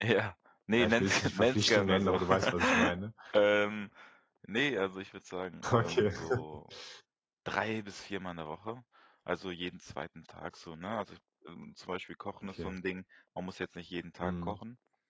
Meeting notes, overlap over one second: present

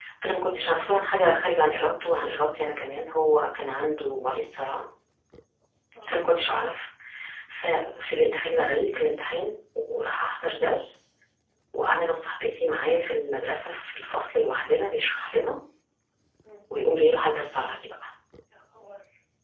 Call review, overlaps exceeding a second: none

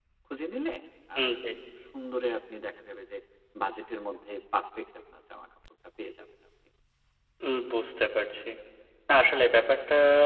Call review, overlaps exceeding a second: none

